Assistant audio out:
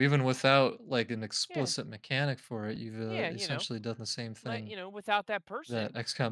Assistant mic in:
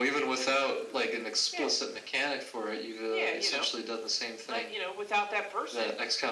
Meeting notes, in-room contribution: none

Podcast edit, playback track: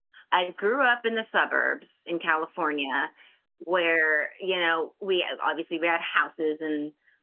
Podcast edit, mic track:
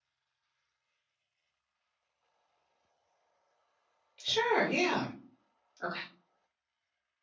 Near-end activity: present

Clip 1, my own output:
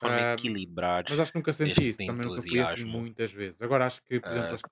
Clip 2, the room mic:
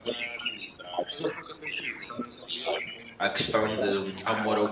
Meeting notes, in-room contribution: present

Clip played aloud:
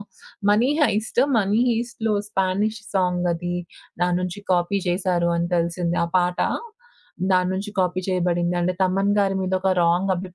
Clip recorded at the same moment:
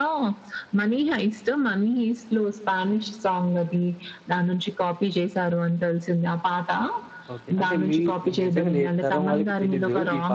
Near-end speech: present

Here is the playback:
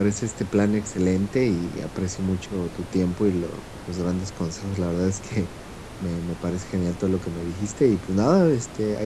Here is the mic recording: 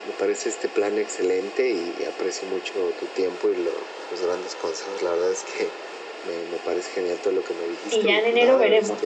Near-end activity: present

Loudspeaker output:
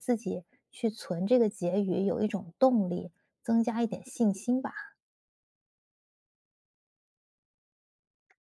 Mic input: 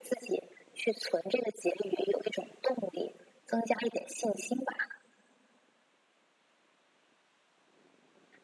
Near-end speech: none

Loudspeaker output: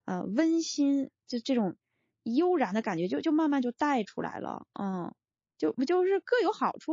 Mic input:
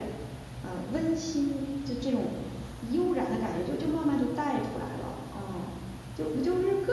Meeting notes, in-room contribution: none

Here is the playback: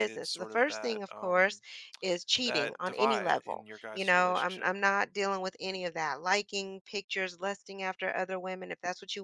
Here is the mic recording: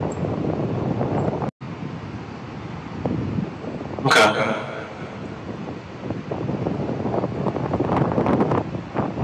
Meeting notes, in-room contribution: present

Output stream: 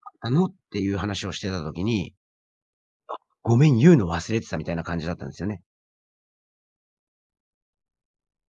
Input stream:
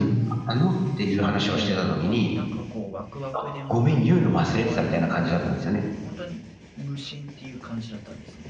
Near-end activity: present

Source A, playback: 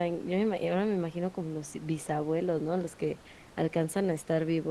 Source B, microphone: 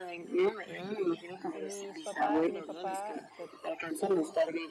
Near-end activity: present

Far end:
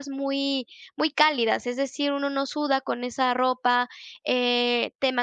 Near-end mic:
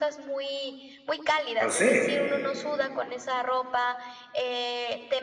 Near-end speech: present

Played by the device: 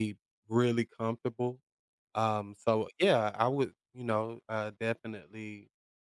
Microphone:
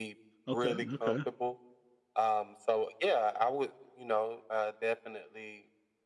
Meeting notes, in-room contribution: present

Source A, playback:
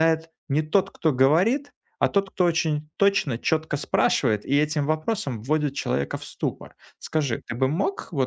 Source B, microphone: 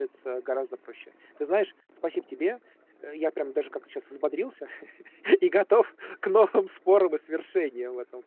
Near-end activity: present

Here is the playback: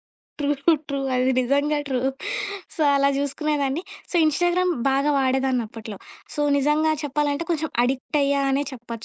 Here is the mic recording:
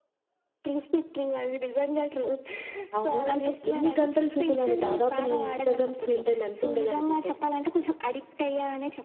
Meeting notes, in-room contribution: present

